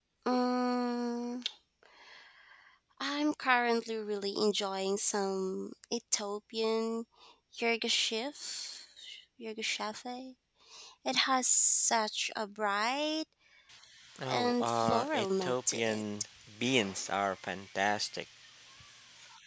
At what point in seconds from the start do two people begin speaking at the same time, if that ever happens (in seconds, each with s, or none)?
14.3 s